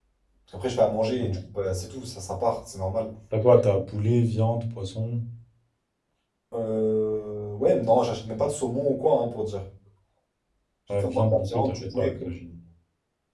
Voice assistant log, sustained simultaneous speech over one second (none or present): present